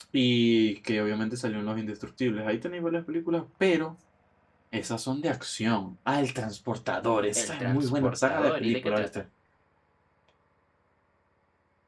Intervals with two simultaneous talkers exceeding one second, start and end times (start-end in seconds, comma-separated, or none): 7.3-9.2